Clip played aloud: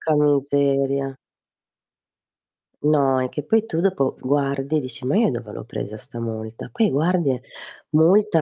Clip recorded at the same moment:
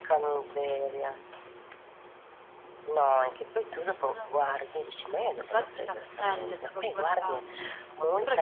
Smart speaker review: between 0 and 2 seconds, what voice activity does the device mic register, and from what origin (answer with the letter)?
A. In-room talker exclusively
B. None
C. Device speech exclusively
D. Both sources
C